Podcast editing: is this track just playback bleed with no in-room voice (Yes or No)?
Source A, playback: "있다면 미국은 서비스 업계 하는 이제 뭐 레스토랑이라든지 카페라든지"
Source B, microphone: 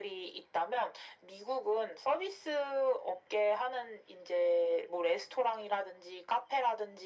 Yes